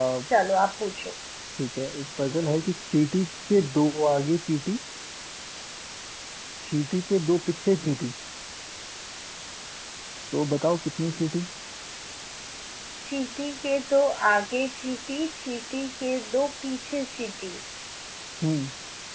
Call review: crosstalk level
none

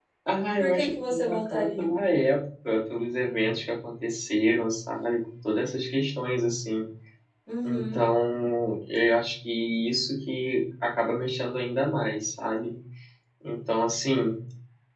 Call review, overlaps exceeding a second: present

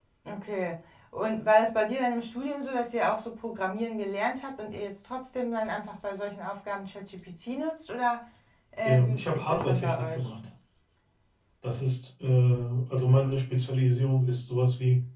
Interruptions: present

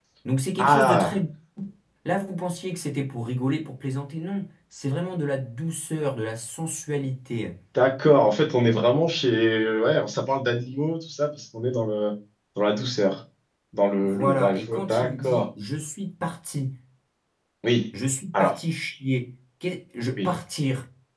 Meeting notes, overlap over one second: present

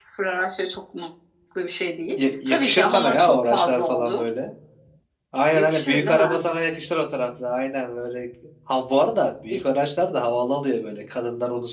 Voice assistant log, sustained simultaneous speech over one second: present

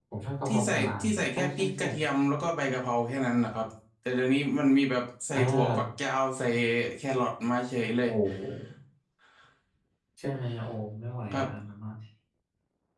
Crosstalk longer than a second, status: present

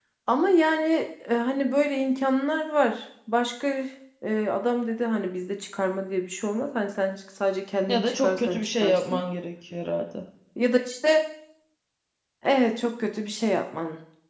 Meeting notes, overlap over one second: present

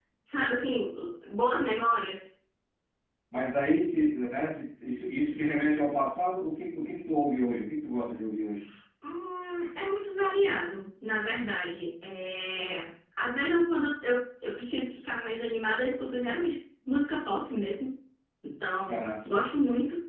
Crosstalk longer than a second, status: none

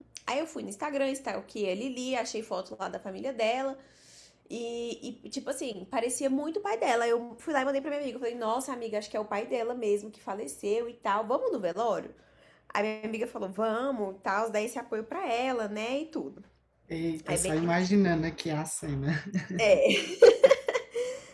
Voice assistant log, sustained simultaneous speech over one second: none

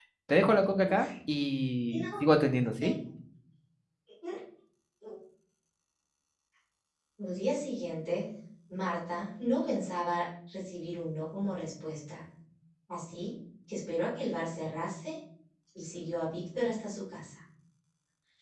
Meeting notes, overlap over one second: none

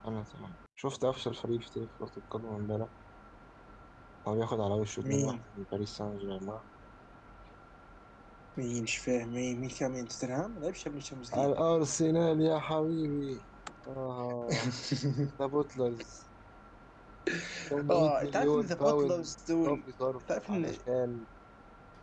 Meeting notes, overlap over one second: present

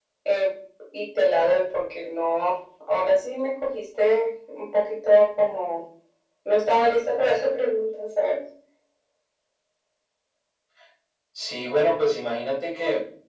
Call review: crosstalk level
none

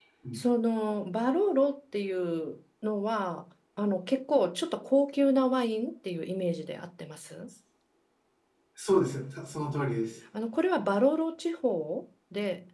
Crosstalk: none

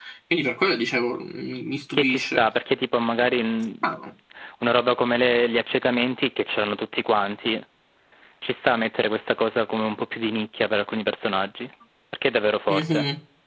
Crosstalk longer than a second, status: none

